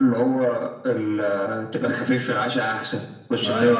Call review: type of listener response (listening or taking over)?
taking over